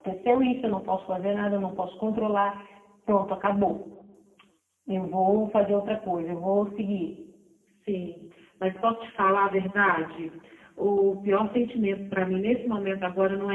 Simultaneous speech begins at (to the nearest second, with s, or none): none